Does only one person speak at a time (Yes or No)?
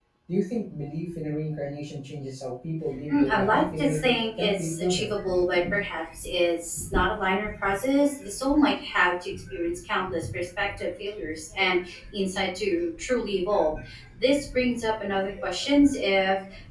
No